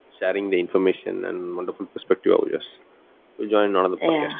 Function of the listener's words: taking over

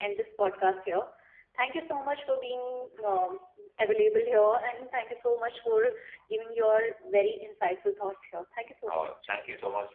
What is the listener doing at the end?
taking over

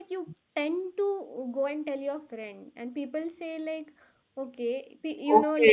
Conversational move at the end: taking over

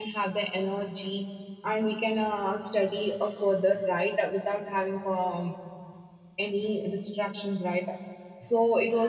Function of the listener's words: listening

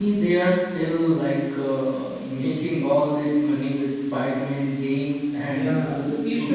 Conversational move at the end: taking over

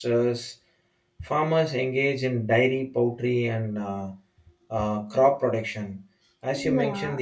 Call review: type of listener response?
listening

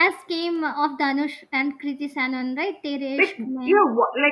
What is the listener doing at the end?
taking over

